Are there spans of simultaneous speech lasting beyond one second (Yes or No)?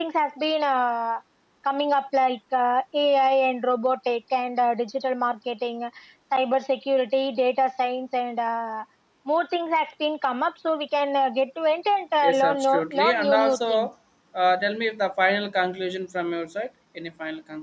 Yes